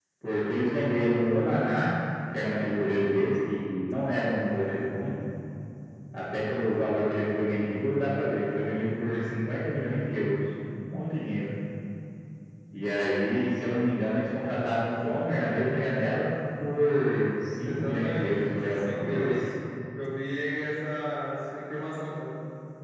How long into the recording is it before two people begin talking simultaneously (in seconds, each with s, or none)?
17.6 s